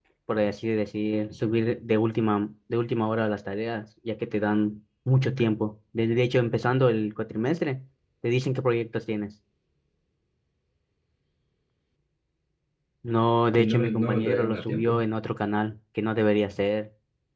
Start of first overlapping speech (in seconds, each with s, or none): 13.6 s